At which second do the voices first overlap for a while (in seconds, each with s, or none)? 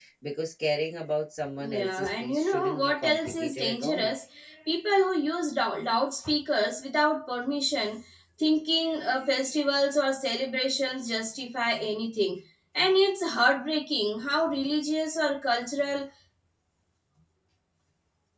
1.6 s